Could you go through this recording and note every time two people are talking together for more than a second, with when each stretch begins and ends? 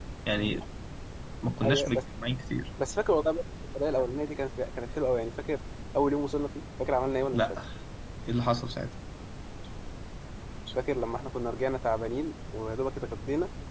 none

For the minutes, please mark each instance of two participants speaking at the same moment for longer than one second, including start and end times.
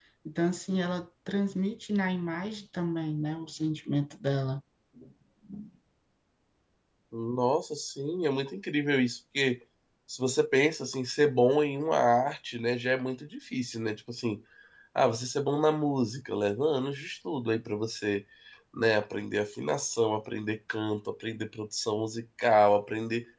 none

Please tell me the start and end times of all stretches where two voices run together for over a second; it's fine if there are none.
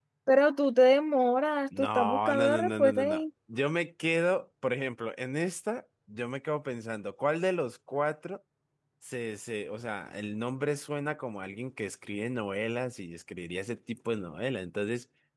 1.8-3.2

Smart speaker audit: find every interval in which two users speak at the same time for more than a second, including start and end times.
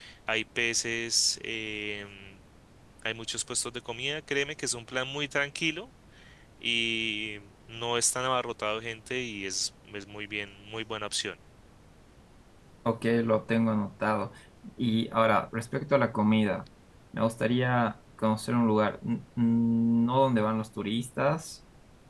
none

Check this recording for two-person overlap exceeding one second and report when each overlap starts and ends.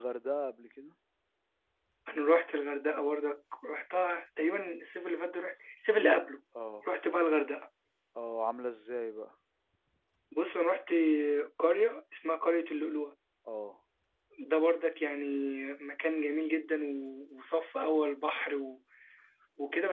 none

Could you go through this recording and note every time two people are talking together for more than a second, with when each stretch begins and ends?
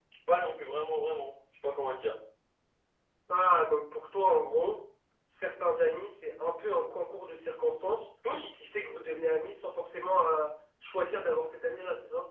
none

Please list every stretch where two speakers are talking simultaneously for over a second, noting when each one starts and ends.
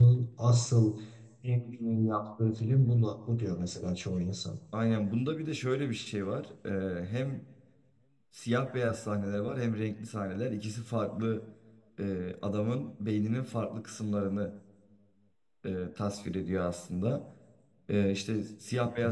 none

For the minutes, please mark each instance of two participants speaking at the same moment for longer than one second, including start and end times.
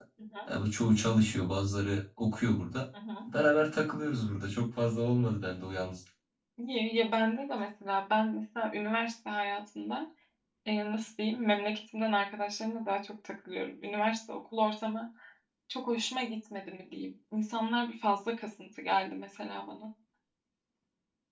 none

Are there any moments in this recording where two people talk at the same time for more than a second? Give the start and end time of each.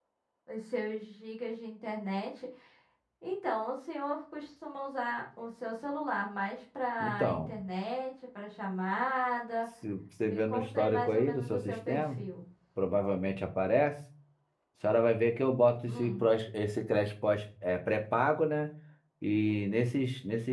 10.2-12.2

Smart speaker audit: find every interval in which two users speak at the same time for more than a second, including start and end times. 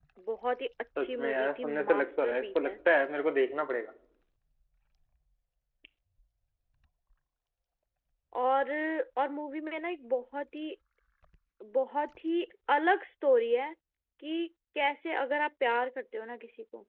1.0-2.7

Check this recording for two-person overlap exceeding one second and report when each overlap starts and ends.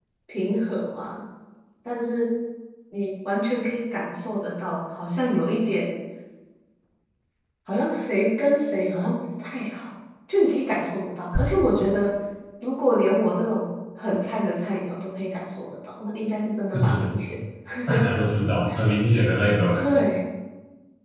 none

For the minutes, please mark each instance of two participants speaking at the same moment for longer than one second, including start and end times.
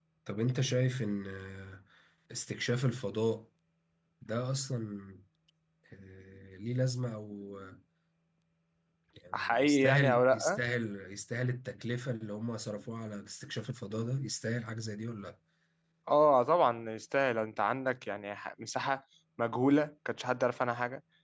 9.3-10.6

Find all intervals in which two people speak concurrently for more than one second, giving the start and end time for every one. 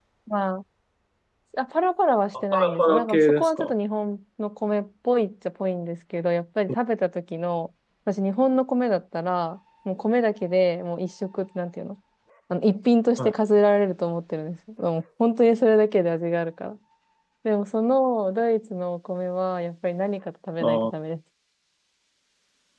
2.3-3.7

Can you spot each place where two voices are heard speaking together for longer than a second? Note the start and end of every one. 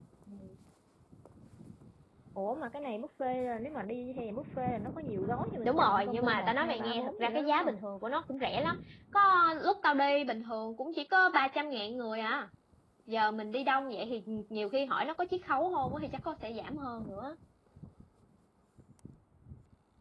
5.6-7.8

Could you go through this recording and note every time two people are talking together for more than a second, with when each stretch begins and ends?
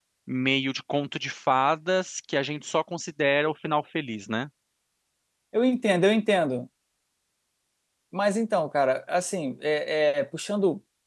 none

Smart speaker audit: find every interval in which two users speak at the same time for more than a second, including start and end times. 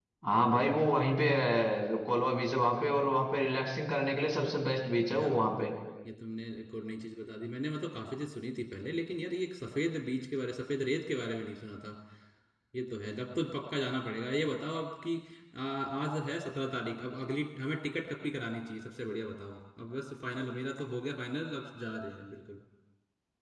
none

